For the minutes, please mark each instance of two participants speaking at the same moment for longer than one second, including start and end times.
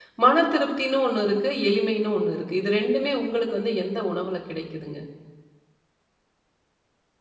none

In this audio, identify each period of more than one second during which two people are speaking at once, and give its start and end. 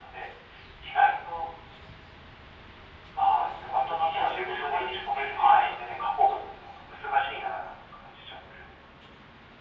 3.2-5.7

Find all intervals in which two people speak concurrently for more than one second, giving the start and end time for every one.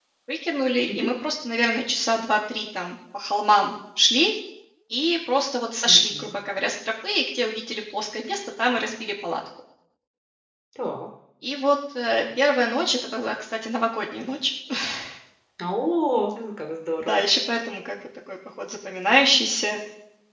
none

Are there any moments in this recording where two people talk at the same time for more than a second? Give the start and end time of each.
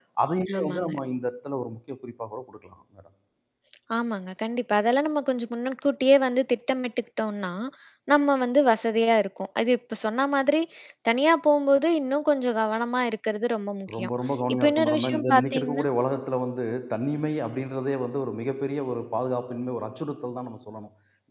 14.5-15.8

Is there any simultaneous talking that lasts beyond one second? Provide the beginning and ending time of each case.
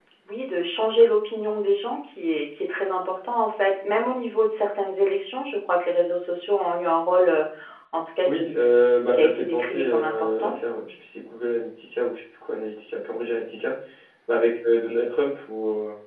9.1-10.5

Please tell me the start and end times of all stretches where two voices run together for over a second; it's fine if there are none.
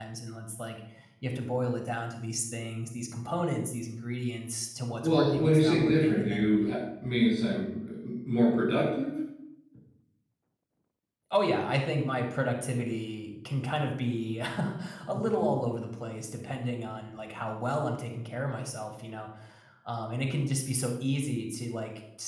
5.0-6.5

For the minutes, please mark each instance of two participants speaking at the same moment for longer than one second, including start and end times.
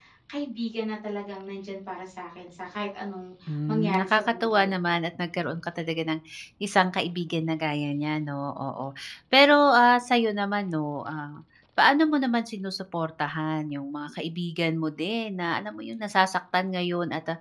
3.7-5.0

